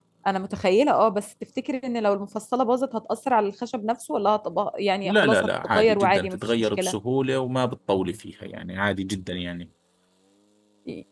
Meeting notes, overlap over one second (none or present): present